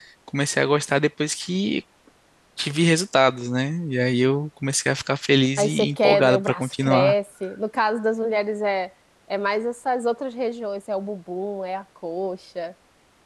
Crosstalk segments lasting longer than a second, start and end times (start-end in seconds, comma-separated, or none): 5.6-7.1